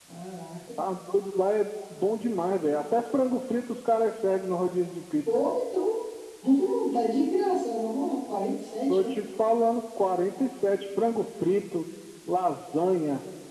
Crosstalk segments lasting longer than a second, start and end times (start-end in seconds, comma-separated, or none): none